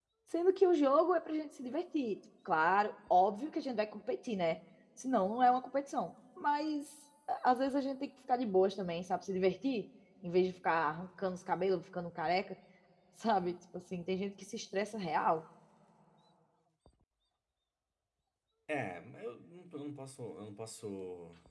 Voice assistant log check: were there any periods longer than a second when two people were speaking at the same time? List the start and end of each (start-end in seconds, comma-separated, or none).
none